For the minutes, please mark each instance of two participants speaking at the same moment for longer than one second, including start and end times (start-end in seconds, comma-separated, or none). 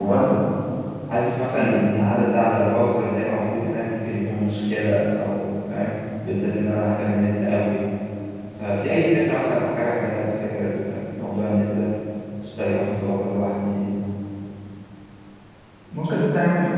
none